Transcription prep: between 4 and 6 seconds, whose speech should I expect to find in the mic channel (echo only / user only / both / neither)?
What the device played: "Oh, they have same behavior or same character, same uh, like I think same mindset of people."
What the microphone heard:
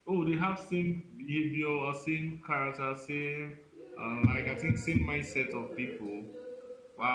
both